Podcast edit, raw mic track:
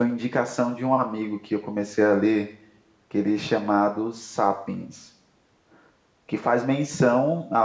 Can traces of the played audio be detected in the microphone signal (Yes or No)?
No